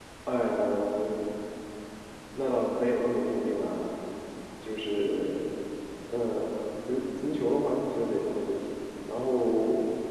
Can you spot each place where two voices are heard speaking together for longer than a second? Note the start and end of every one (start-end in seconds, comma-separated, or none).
none